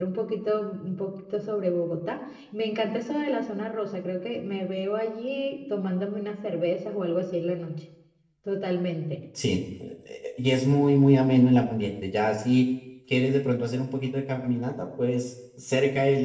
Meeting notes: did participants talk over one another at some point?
No

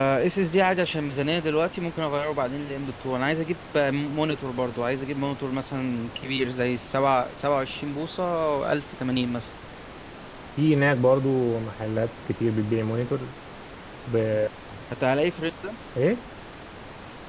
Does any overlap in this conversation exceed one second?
No

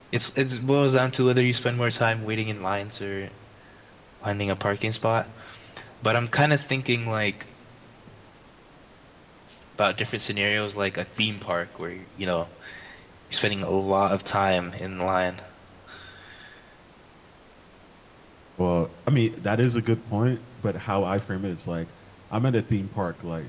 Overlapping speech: No

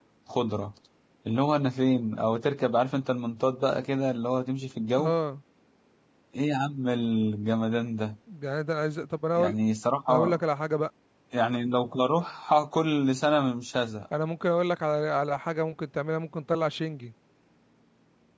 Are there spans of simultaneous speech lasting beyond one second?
No

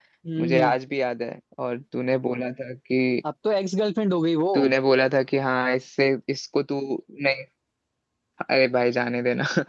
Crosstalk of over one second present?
No

